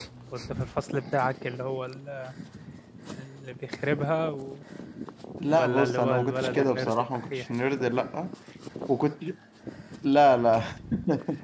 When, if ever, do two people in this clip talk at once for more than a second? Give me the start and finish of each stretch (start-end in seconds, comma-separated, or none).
5.4-7.5